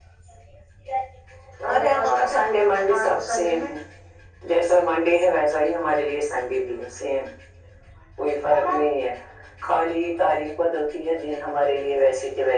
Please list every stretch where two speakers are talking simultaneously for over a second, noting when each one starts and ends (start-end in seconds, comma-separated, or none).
1.7-3.7